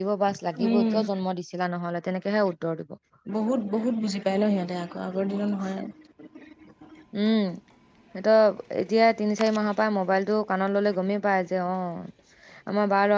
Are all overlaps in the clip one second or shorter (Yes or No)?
Yes